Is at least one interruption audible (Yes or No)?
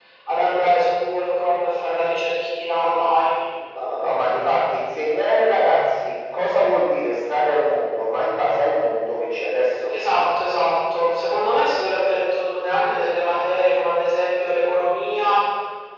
No